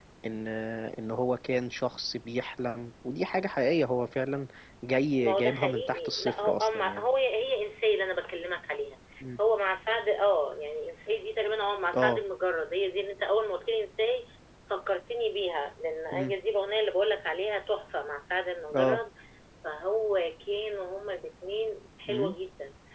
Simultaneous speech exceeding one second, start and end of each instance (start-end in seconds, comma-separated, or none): 5.2-7.0